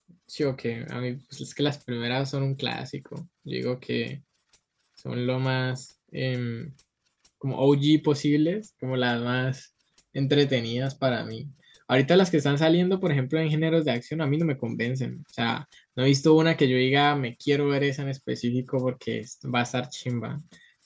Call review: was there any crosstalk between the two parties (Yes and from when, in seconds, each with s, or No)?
No